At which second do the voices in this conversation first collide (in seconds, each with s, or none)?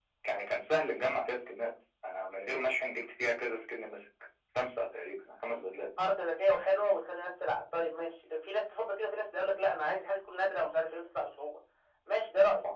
none